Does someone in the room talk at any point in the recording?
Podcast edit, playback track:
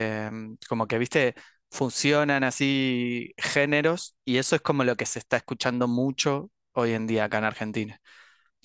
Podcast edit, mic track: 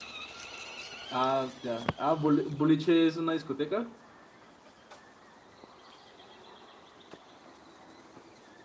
Yes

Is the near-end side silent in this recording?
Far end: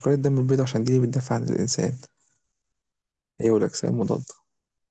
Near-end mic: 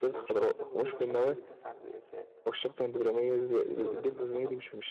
No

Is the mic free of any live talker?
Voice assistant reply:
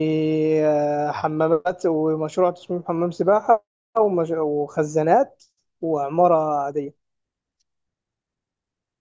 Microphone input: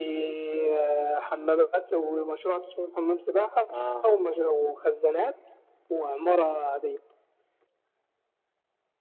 No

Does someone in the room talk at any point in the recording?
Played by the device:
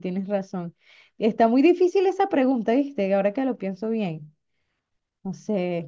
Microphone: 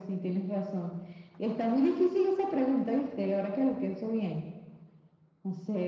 No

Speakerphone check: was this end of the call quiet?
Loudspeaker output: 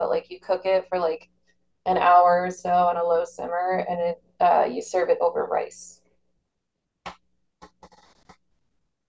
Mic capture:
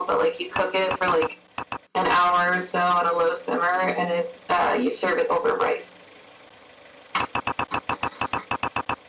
Yes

